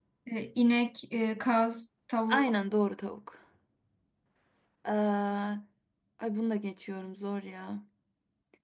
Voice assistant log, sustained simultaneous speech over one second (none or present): none